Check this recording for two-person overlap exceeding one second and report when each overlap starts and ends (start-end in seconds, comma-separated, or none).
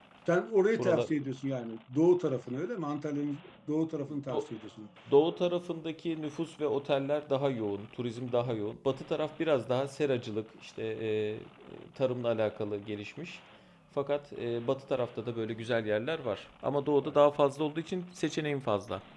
none